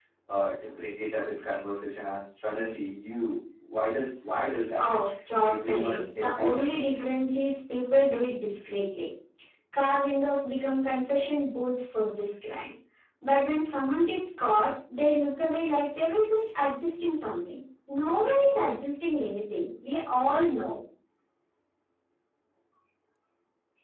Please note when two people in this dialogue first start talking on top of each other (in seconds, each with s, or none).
5.4 s